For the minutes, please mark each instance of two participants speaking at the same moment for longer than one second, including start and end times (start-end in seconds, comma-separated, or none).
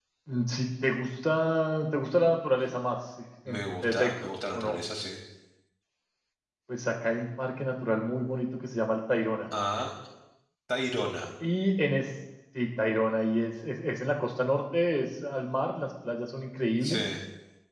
3.5-4.8